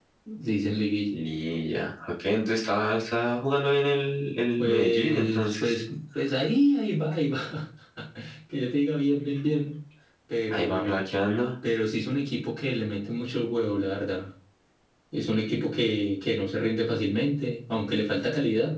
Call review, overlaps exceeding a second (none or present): present